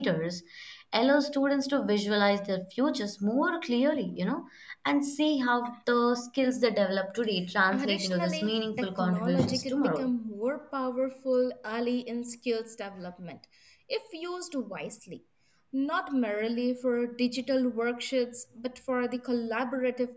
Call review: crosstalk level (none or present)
present